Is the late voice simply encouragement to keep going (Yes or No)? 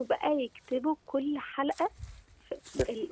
No